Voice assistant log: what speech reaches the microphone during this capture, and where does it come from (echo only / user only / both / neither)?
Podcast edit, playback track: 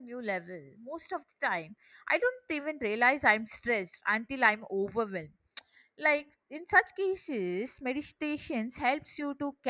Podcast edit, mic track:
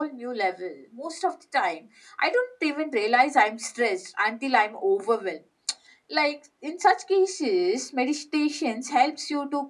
echo only